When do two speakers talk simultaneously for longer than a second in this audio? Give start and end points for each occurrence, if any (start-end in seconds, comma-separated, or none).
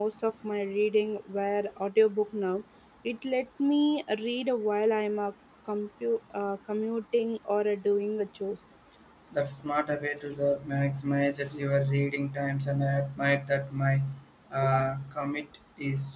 none